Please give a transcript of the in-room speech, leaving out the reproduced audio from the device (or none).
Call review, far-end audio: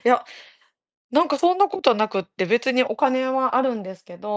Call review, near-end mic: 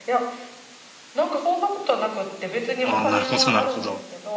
あーなるほどなるほど。